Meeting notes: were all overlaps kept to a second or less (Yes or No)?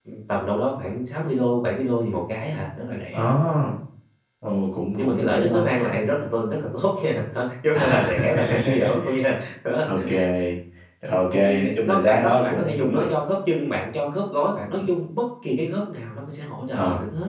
No